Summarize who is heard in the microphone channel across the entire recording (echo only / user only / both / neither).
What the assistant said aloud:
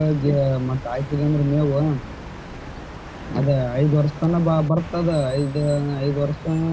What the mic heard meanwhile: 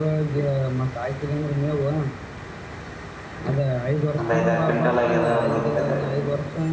both